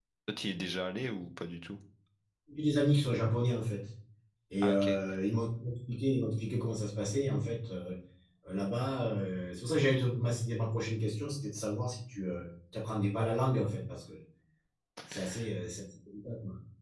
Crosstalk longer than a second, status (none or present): none